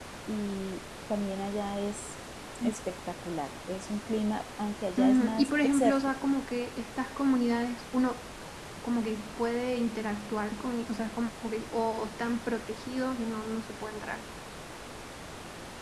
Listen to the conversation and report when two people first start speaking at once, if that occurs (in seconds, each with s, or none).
5.0 s